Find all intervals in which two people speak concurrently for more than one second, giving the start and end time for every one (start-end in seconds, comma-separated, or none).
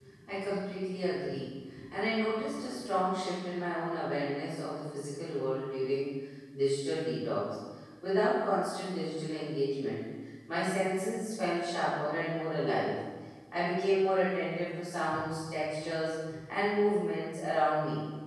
none